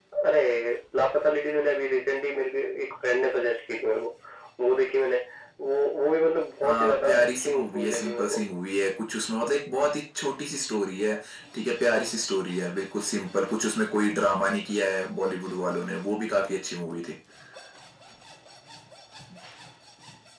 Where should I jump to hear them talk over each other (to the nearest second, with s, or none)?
7 s